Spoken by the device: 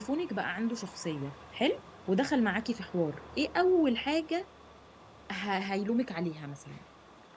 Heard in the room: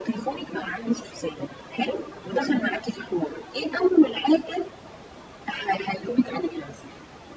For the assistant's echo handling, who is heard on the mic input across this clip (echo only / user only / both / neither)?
echo only